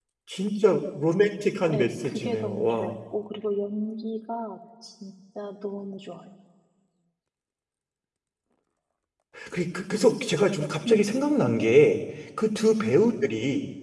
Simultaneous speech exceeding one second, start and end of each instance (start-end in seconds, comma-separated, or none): 1.7-2.9